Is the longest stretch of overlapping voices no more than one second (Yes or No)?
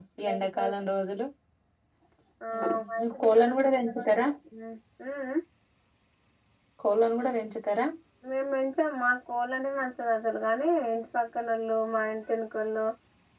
No